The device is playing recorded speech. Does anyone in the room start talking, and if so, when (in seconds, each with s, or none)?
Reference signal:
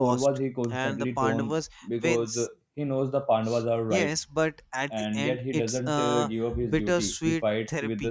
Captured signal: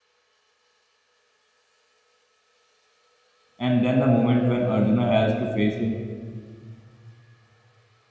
3.6 s